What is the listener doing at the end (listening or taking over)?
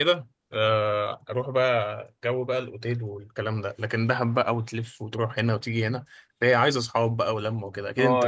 taking over